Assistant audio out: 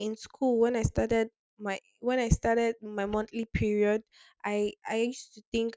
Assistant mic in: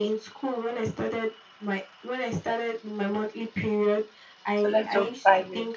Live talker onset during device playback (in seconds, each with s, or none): 4.6 s